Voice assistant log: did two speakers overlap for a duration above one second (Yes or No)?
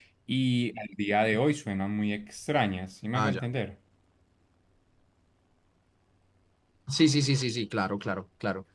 No